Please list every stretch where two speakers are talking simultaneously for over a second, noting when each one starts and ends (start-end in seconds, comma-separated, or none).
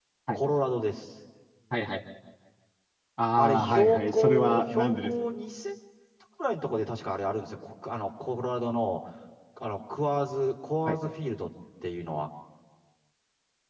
3.4-5.1